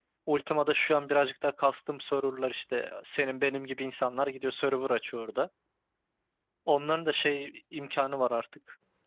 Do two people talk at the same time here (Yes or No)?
No